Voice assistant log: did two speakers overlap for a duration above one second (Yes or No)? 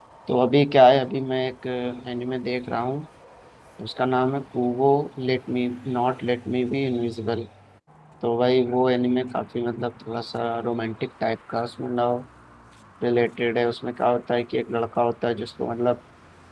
No